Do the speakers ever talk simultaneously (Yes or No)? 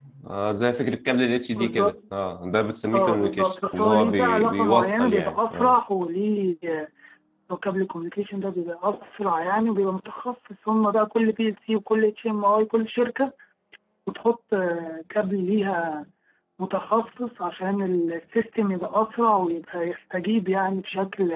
Yes